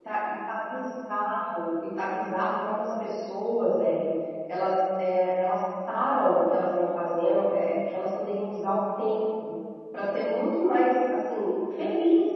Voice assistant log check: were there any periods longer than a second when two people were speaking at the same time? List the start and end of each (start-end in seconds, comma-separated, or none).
none